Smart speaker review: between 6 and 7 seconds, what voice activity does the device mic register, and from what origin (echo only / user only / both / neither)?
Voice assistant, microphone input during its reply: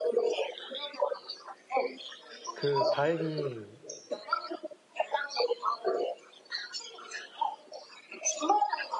echo only